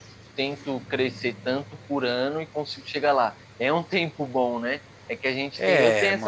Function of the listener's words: listening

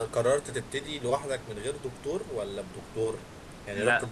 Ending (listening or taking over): listening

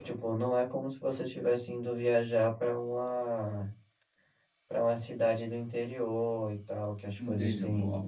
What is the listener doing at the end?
taking over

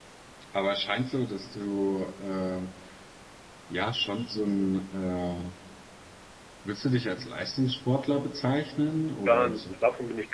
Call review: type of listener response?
taking over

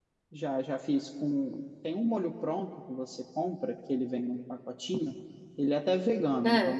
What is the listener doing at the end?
listening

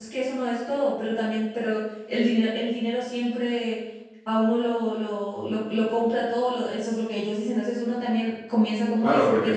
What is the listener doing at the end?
taking over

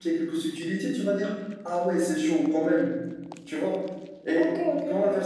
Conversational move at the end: taking over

